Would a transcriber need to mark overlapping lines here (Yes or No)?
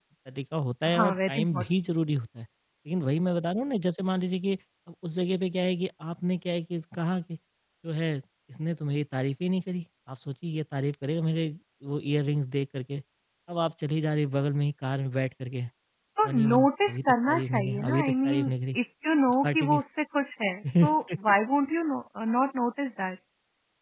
Yes